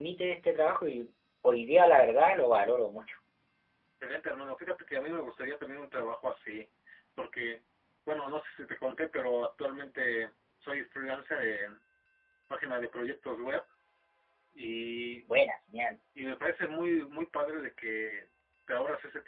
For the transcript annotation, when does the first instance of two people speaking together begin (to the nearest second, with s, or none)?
none